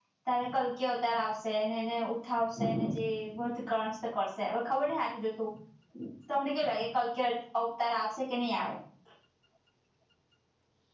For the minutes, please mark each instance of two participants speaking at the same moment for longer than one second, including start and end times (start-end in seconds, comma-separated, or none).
none